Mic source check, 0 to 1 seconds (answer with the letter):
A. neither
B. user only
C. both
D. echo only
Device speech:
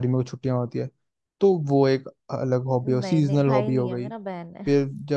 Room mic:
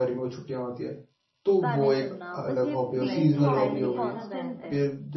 D